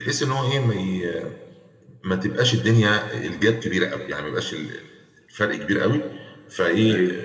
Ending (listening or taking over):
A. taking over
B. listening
B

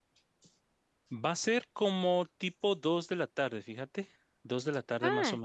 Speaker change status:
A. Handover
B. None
A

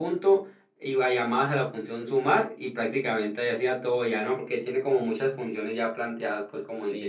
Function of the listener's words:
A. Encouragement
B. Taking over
B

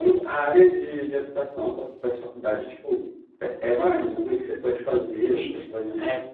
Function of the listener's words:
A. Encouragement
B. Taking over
B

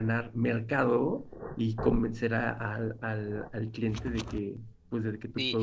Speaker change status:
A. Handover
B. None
A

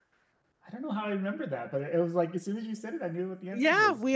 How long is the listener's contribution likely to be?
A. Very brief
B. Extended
B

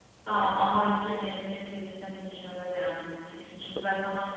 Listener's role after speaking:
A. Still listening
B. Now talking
A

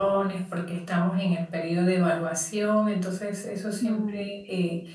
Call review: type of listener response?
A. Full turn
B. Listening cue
B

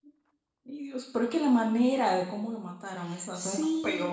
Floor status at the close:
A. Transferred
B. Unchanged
A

